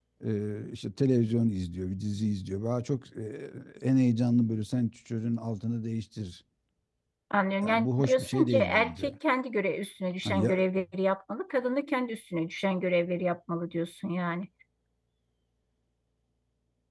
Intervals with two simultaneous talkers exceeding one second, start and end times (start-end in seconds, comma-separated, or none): 7.6-9.1